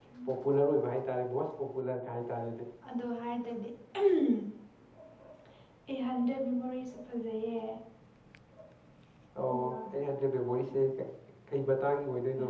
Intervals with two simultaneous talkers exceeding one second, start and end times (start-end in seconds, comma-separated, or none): none